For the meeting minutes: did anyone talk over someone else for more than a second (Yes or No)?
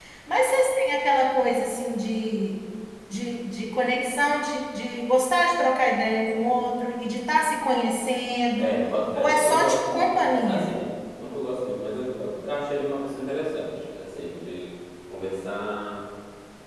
Yes